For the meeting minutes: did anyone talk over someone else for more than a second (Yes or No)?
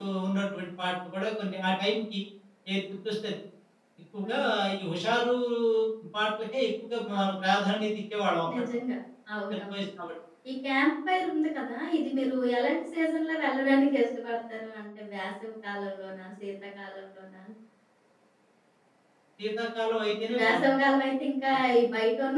No